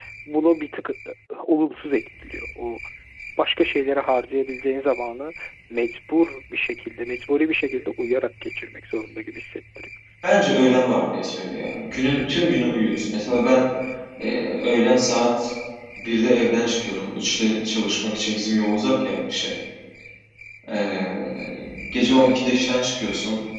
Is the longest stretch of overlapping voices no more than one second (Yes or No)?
Yes